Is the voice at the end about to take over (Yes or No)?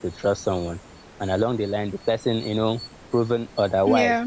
No